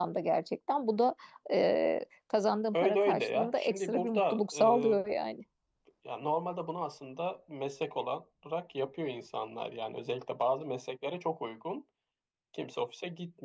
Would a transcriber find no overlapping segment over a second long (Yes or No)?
No